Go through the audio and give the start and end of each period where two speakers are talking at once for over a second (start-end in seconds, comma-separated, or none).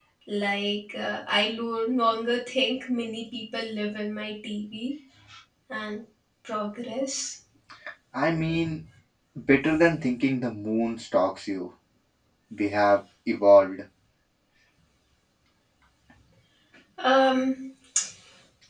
none